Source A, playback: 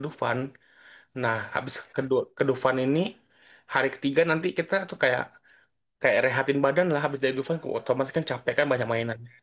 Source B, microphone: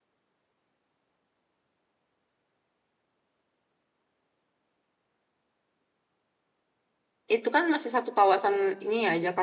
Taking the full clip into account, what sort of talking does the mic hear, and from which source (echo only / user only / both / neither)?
user only